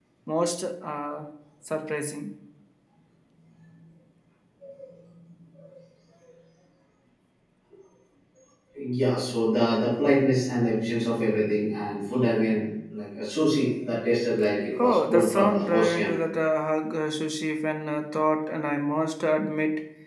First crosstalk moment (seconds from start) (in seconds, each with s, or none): 14.8 s